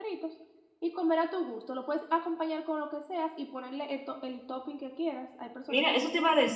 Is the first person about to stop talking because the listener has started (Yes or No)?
Yes